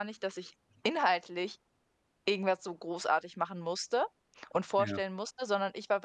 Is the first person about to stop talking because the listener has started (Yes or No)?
No